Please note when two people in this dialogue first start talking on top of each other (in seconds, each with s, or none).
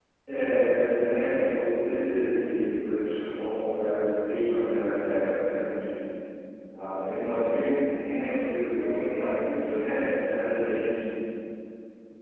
8.0 s